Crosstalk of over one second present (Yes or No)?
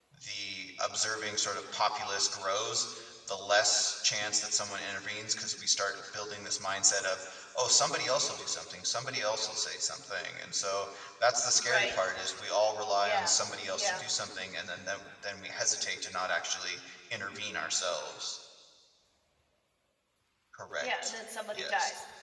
No